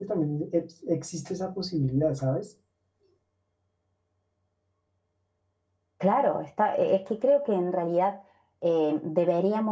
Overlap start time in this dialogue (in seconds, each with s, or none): none